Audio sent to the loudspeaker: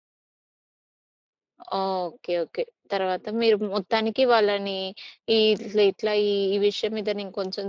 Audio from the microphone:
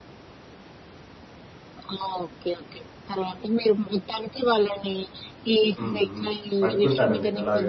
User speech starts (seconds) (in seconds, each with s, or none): 5.8 s